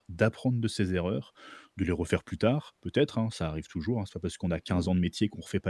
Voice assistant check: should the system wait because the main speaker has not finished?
Yes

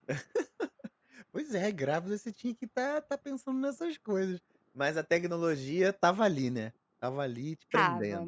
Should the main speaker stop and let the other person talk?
Yes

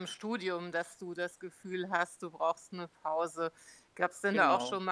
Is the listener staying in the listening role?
Yes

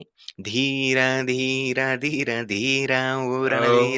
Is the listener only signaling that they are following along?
Yes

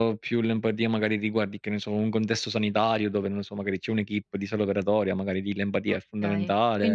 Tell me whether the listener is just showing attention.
No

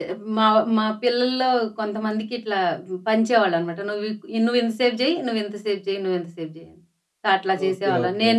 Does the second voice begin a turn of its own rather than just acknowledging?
No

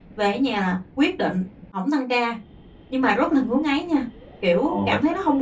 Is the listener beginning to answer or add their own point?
No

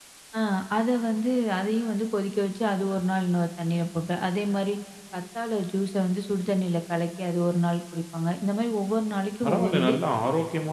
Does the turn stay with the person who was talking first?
No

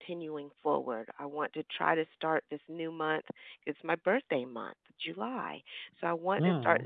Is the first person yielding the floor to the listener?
No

